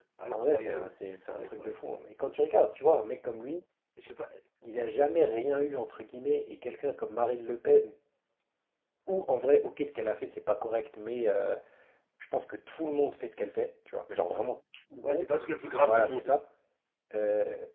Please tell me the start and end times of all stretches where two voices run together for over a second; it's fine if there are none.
none

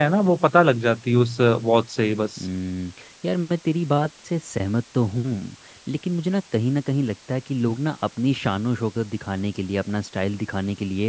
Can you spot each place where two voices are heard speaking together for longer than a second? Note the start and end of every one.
none

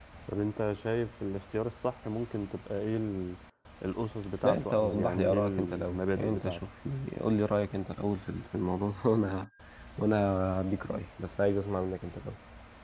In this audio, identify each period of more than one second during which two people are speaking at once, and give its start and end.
4.4-6.6

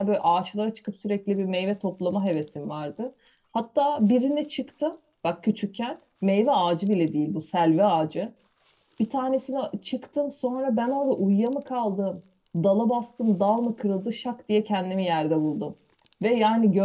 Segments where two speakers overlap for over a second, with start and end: none

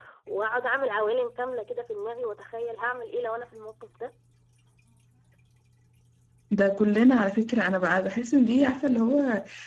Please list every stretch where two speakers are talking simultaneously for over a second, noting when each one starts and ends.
none

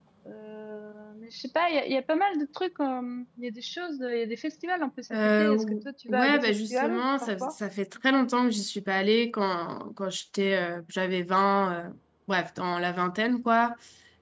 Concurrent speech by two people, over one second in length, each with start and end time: 5.1-7.5

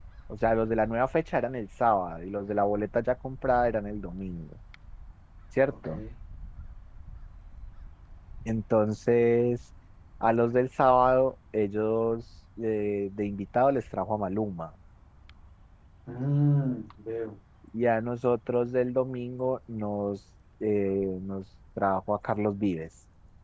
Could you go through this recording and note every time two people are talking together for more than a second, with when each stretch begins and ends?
none

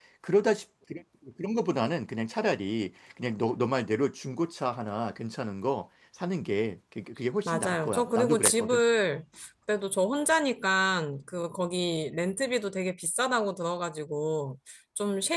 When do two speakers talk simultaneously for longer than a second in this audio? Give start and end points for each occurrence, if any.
7.5-8.8

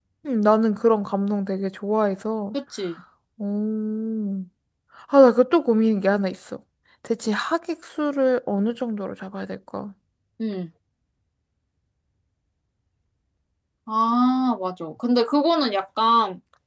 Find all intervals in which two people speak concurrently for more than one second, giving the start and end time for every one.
none

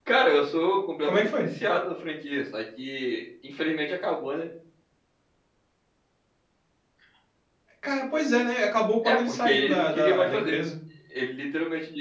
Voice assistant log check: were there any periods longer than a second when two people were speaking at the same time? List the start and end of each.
9.0-10.6

